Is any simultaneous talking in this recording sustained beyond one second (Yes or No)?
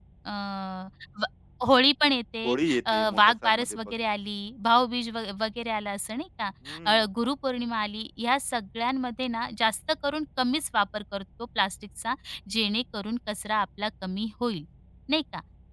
Yes